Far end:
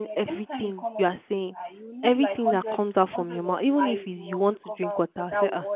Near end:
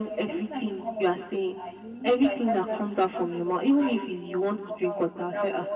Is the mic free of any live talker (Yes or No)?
Yes